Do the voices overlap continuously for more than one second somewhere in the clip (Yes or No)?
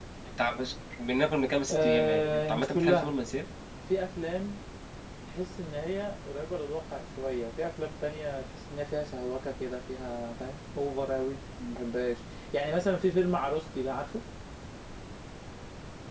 Yes